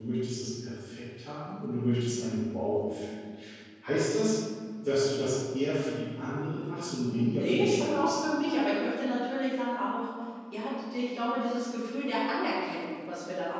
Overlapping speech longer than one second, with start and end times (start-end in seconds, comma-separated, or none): 7.0-8.2